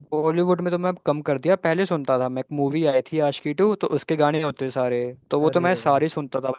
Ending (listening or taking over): listening